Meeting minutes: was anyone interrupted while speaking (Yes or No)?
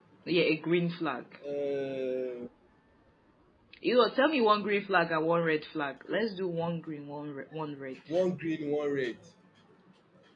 No